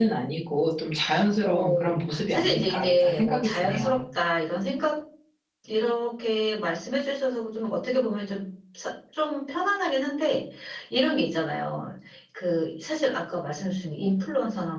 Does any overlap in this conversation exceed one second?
Yes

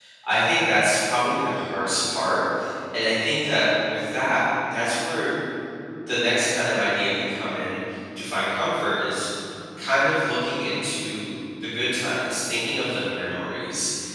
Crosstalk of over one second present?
No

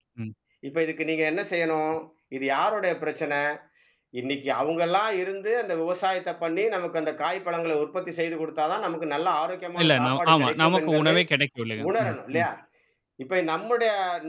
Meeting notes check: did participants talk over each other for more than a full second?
Yes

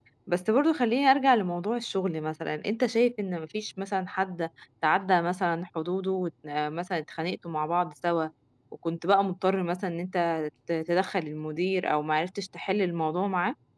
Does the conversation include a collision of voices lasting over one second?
No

